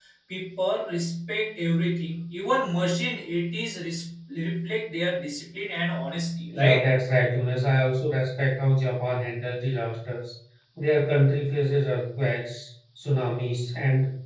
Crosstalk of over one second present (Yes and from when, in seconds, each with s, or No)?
No